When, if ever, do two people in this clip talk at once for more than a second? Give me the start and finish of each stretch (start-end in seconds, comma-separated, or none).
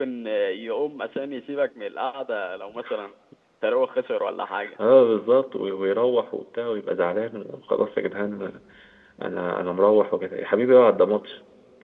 none